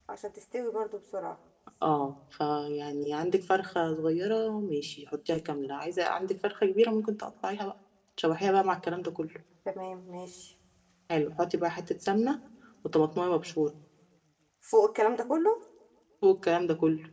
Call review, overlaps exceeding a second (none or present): none